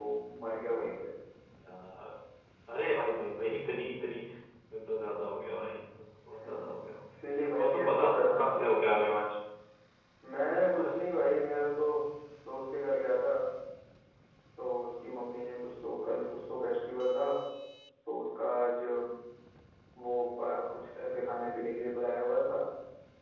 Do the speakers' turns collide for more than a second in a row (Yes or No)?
Yes